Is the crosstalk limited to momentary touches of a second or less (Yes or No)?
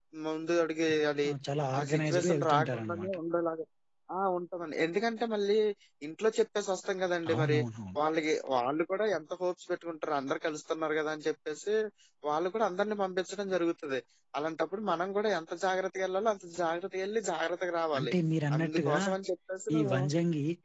No